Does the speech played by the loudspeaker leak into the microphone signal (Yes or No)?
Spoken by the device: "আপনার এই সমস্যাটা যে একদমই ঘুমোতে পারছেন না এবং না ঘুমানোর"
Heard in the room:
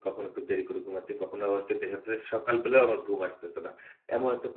No